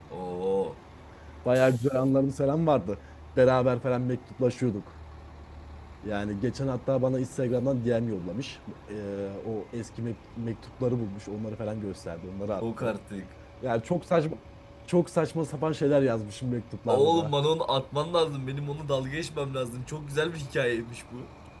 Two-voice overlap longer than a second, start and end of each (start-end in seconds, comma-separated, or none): none